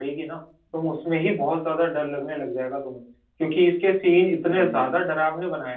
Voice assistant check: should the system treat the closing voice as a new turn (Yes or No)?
No